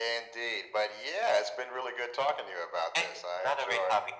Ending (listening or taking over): taking over